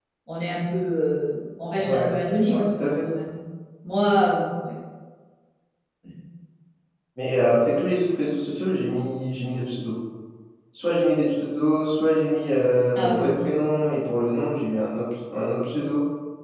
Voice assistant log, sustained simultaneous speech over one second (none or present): none